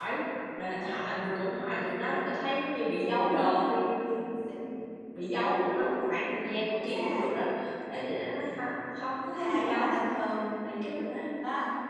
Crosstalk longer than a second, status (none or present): none